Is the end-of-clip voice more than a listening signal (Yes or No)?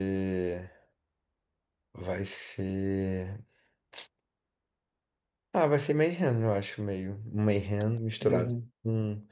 No